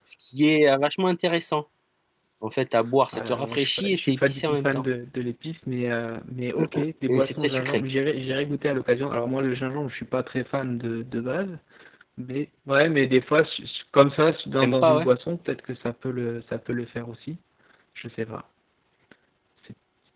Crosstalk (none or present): present